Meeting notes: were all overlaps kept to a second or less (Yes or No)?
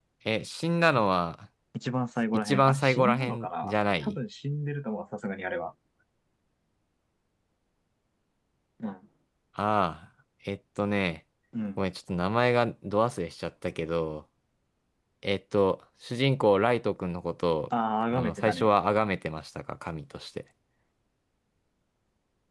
No